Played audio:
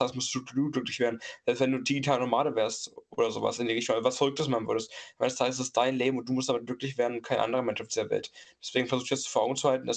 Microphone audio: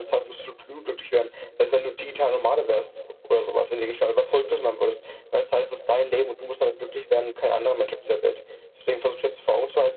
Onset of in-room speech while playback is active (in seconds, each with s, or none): none